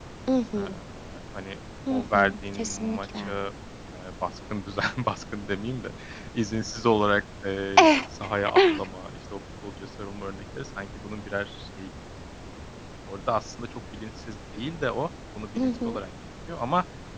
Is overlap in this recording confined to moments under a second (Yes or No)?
No